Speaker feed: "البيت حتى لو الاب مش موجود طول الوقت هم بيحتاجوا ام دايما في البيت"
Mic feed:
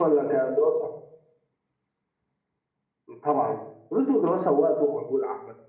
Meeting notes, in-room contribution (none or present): present